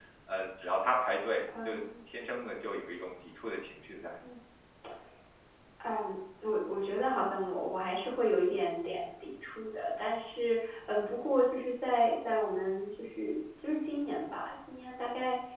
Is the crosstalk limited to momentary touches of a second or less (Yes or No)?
Yes